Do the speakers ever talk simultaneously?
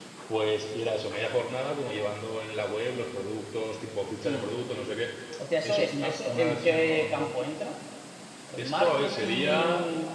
Yes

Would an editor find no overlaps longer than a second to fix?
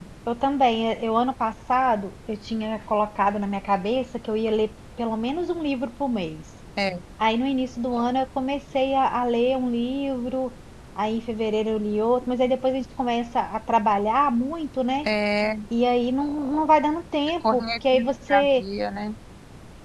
No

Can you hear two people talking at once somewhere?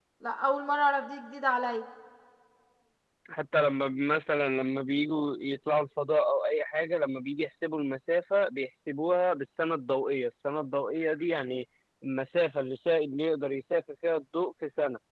No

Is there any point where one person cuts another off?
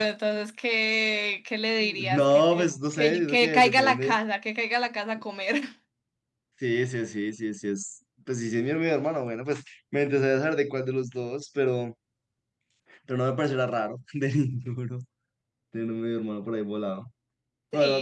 Yes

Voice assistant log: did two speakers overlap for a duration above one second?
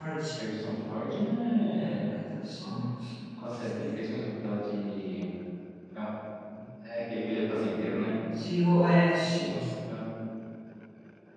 No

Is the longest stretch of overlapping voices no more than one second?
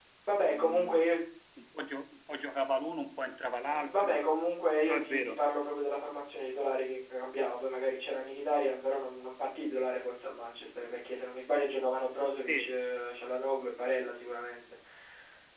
Yes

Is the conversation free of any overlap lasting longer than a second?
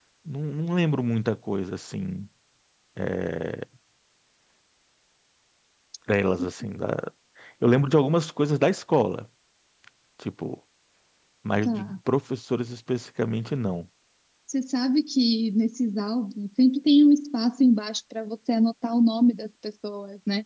Yes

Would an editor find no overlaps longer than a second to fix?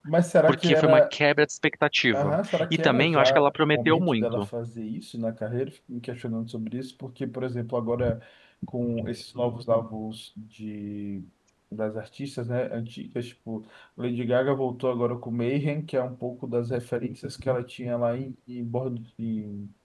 No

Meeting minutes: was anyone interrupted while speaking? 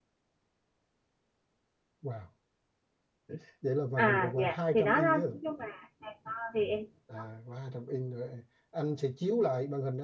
Yes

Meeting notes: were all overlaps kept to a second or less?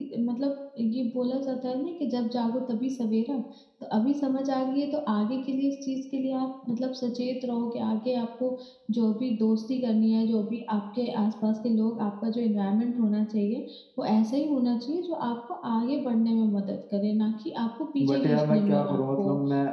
No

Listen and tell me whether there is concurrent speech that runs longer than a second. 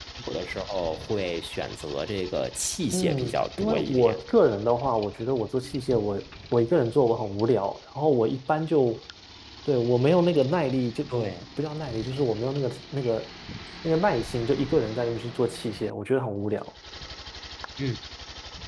Yes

